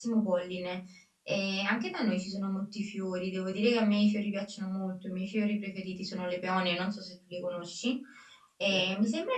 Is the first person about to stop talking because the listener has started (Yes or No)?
No